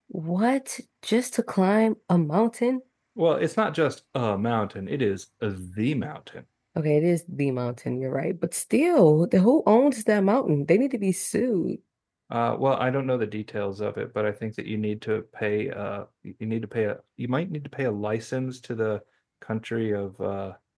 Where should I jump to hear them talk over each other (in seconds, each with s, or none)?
none